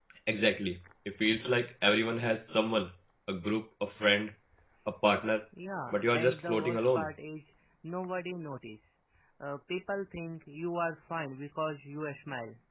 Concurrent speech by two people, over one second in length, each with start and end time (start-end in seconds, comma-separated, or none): 5.9-7.1